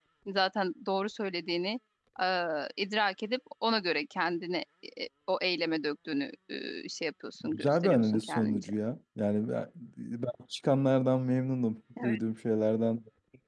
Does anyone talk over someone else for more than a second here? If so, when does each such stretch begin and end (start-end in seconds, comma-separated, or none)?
7.4-8.7